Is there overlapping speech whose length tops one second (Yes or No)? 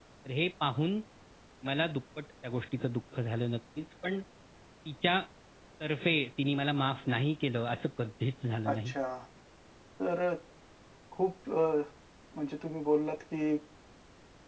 No